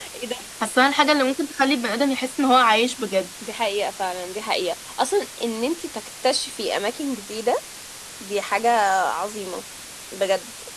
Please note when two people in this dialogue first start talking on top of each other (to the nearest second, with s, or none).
none